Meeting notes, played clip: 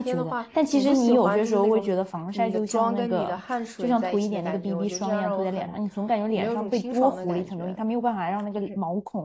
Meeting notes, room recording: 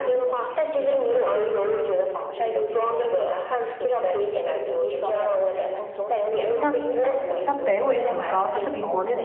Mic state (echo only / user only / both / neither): both